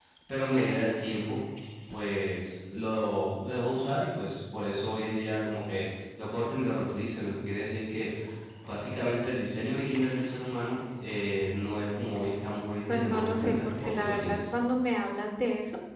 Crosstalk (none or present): present